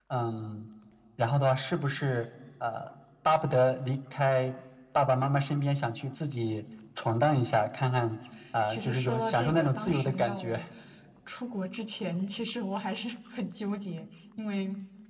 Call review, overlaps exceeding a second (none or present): present